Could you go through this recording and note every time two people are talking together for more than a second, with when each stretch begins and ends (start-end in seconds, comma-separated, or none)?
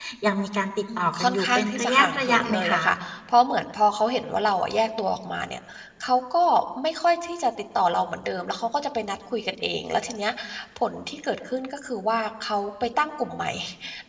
1.0-2.8